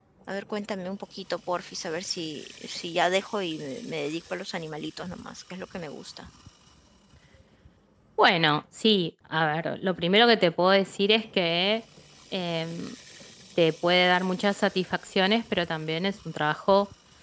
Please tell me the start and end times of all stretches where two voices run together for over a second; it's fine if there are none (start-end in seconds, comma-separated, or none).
none